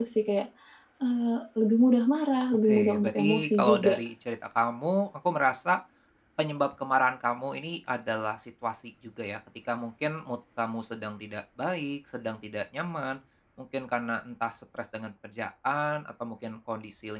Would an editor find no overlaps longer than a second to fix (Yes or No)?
No